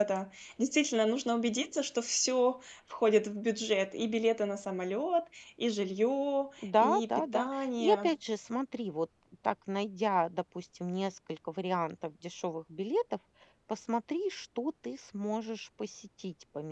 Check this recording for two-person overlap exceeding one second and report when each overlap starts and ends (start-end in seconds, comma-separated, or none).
6.6-8.1